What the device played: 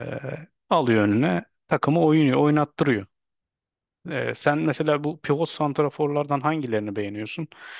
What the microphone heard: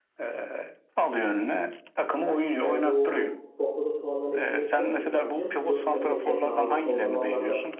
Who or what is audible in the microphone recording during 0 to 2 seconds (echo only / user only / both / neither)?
echo only